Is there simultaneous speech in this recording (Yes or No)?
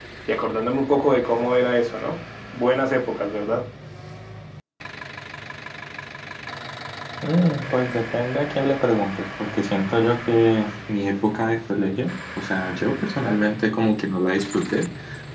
No